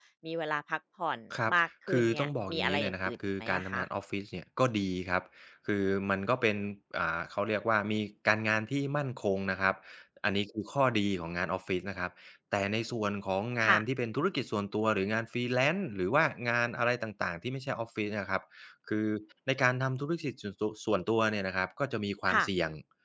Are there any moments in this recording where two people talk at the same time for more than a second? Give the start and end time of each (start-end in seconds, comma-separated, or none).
1.9-3.8